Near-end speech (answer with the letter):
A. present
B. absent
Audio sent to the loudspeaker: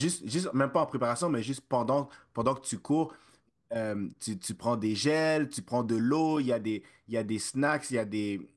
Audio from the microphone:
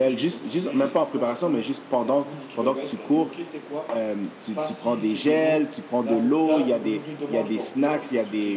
A